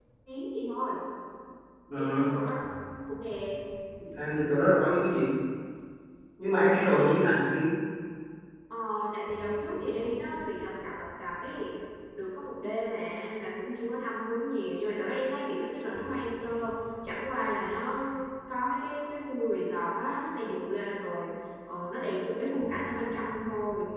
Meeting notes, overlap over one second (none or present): none